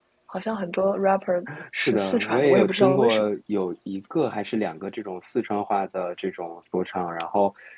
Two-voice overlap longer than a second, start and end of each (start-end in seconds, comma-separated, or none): 1.8-3.3